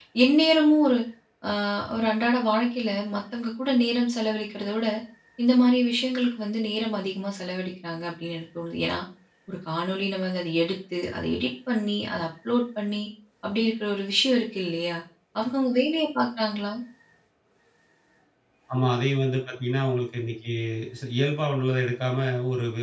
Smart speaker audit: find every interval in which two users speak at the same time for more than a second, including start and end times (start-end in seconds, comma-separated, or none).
none